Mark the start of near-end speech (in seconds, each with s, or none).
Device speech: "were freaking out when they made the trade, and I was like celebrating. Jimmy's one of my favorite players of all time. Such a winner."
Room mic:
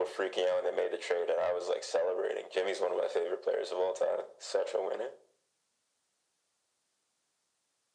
none